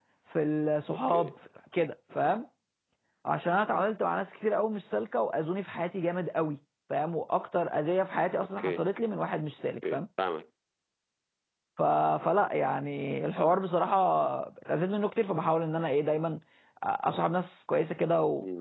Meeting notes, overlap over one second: none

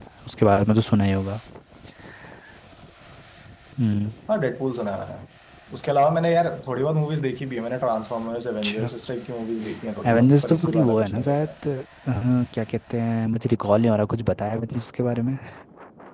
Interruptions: present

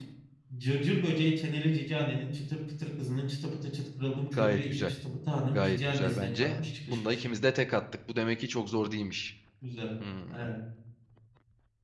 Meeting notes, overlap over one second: present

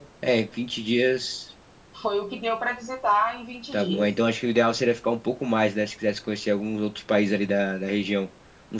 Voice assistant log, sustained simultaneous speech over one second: none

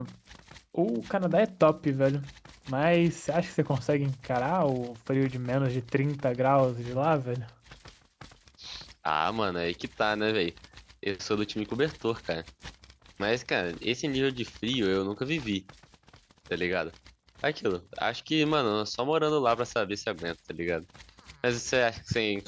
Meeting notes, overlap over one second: none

